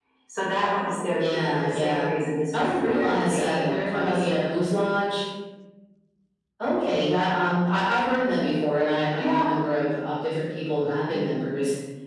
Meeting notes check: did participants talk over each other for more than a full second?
Yes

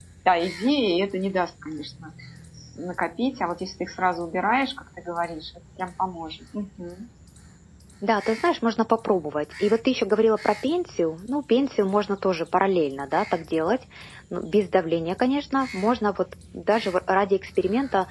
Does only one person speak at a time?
Yes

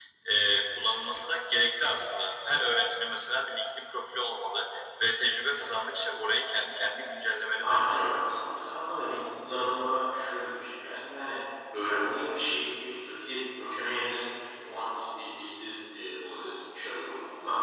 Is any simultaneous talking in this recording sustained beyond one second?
No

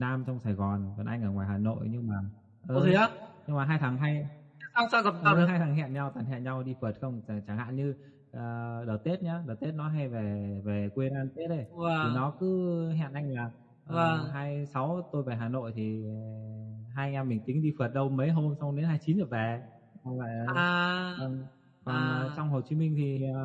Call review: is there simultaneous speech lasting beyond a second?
No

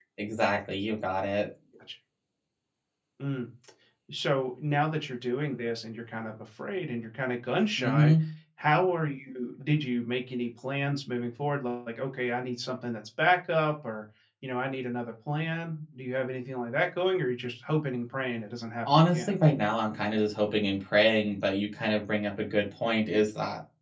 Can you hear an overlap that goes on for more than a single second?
No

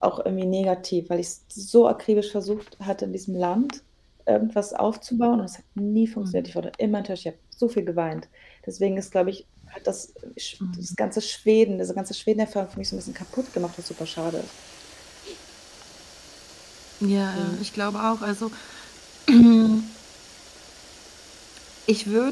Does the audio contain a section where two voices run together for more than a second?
No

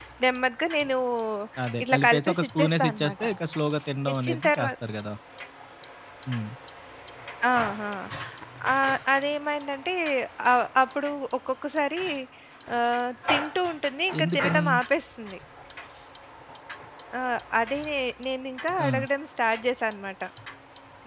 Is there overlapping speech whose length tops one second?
Yes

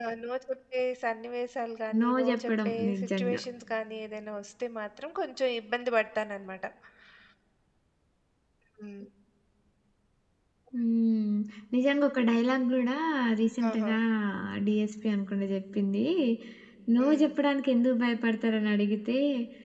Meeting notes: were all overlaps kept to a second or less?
No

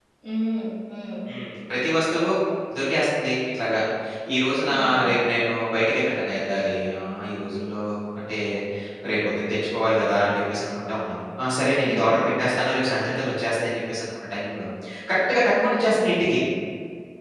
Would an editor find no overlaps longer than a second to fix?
Yes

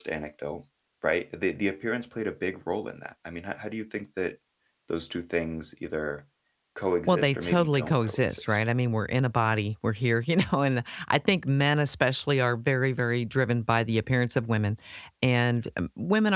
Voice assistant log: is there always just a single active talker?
No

